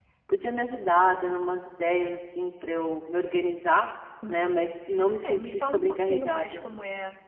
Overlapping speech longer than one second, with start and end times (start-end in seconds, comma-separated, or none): 5.2-6.7